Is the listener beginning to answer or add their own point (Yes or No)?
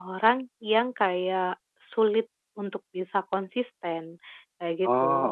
No